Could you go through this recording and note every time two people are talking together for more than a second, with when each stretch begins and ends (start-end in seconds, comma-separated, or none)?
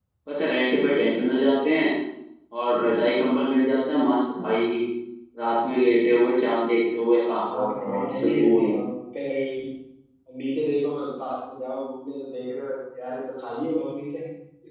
7.5-8.7